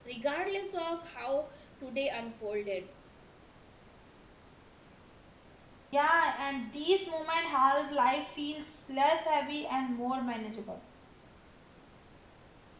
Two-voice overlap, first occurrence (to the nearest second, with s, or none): none